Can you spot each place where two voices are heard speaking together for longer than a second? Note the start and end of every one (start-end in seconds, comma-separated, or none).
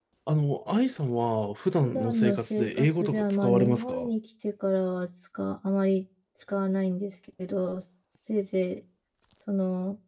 1.8-4.1